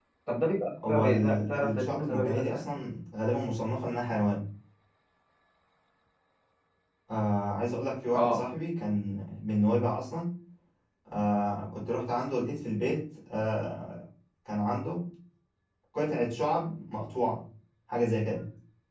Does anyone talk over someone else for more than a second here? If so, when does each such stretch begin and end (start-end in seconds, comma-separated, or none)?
0.8-2.7